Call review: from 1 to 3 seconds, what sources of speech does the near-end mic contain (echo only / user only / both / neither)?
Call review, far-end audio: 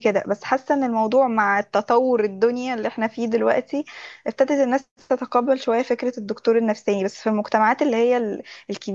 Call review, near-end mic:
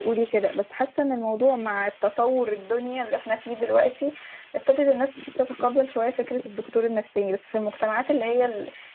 echo only